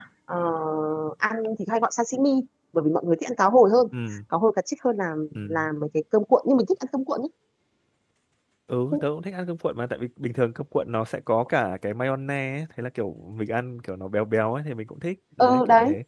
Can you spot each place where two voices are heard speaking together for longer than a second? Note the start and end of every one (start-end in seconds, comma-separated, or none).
none